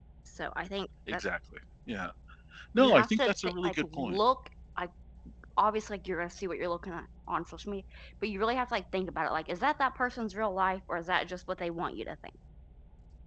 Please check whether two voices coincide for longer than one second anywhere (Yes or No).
Yes